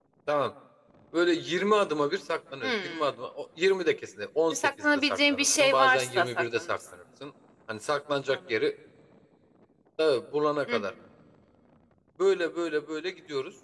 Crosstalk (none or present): present